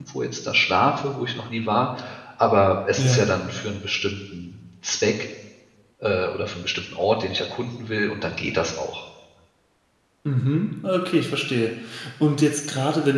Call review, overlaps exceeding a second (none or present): none